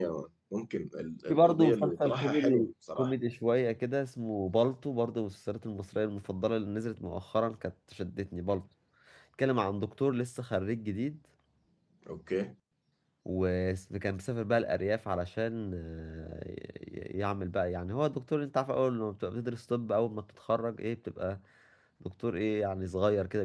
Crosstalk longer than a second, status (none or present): present